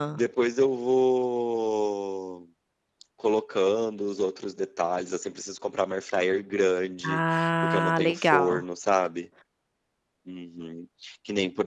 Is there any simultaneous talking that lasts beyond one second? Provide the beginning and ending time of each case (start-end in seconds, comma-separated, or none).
7.0-8.6